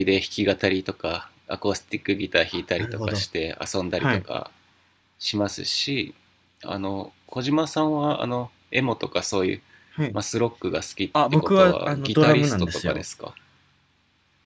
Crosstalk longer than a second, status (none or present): present